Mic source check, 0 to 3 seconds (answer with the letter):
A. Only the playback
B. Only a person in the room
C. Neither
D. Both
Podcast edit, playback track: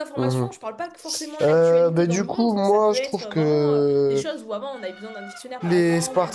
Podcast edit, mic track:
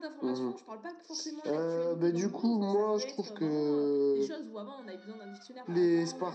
A